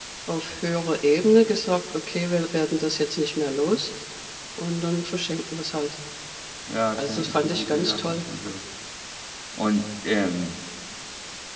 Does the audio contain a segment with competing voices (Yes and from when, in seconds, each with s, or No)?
Yes, from 7.0 s